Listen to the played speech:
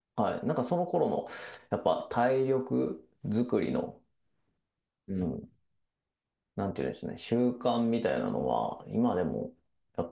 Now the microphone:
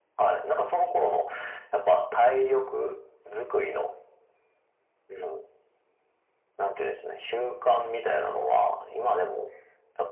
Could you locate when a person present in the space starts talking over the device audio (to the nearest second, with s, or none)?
none